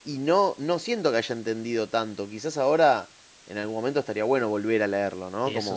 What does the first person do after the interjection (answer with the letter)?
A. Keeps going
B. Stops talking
A